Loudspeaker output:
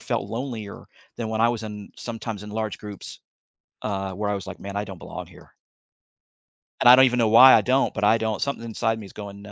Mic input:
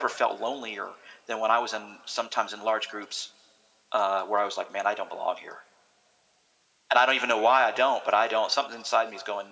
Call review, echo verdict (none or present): present